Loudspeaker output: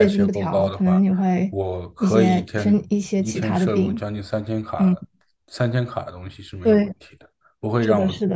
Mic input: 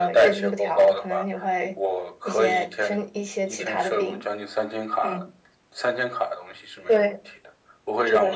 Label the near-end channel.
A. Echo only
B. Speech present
A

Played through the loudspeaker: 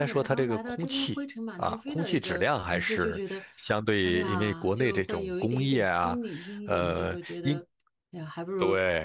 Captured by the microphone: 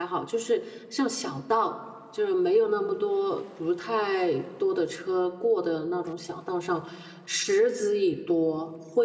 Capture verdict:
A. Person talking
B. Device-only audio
A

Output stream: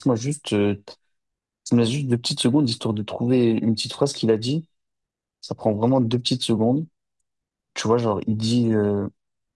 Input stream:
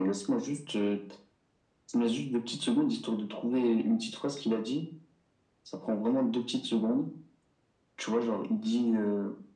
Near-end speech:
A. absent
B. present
A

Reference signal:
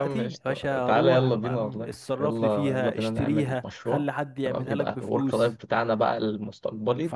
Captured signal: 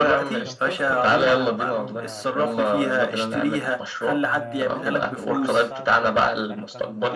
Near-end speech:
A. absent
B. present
B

